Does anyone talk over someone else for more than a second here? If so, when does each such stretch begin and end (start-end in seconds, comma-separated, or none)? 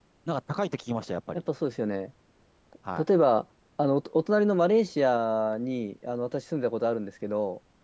none